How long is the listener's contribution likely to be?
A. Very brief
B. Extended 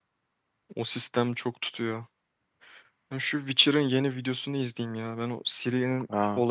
B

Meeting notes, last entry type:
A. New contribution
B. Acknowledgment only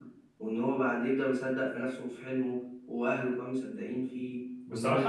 A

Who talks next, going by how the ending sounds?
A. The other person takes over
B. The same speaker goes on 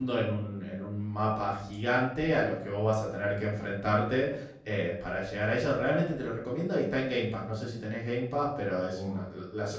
A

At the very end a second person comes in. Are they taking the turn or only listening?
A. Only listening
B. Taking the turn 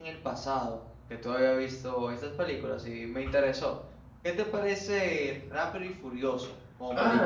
B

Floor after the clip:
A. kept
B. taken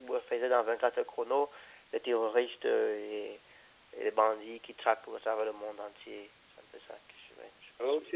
B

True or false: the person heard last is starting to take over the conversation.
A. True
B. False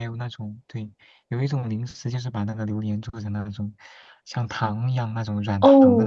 A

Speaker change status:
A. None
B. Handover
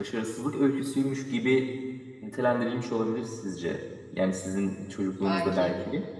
A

